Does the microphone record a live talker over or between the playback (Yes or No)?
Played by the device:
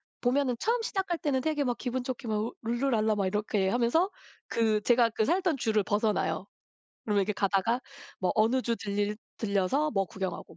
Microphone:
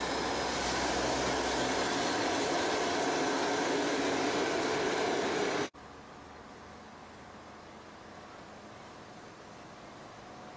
No